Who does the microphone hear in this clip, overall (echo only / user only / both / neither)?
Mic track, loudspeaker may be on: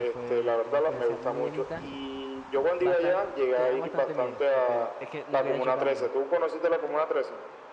both